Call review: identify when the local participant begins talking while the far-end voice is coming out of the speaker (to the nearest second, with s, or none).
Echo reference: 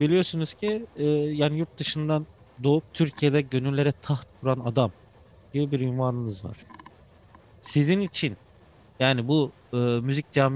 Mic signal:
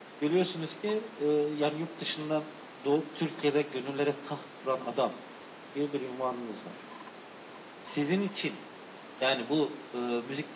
none